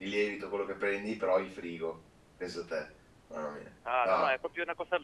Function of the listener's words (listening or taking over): taking over